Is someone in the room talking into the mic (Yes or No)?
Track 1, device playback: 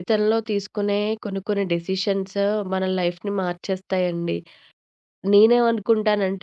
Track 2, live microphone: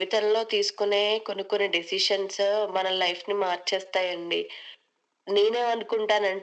No